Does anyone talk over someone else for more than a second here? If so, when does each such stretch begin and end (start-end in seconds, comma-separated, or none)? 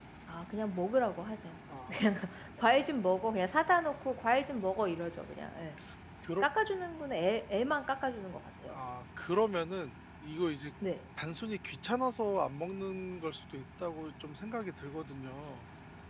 none